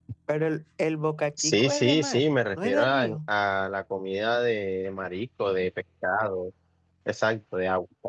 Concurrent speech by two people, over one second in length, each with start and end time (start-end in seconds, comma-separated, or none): 1.4-3.0